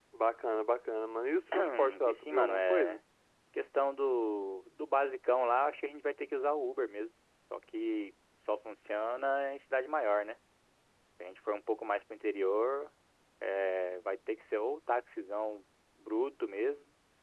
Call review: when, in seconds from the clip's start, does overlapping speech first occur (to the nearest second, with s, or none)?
2 s